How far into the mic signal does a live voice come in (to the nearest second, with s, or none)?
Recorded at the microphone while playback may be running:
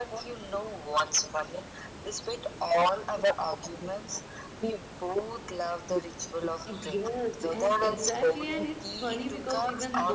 7 s